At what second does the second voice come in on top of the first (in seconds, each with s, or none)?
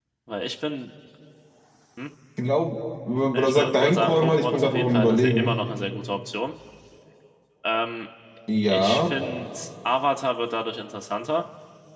3.3 s